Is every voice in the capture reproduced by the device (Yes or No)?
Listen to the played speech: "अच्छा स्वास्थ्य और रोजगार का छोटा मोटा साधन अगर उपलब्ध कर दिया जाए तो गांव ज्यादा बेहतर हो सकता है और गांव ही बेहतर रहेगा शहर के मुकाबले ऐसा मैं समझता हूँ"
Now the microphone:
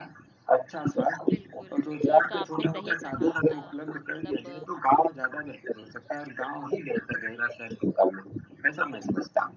No